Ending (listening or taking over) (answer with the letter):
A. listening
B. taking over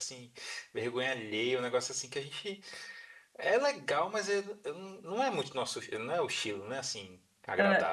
B